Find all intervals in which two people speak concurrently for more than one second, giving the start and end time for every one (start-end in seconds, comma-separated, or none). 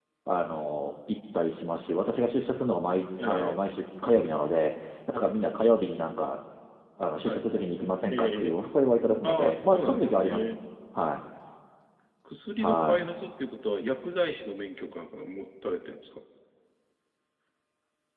9.2-10.5